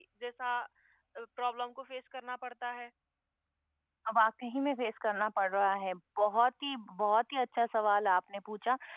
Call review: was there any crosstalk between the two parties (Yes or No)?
No